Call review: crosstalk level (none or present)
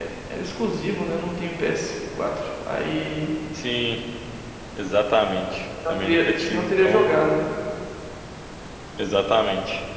present